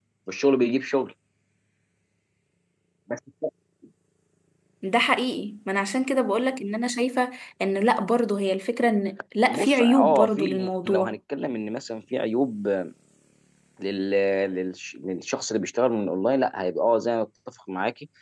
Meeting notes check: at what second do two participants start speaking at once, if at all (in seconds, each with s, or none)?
9.4 s